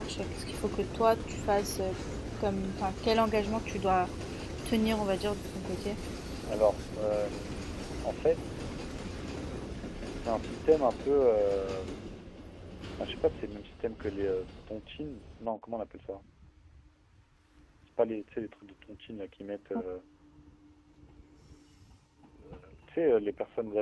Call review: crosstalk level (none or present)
none